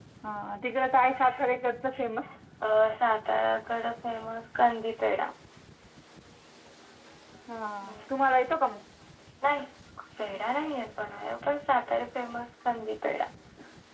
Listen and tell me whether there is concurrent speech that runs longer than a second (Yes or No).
No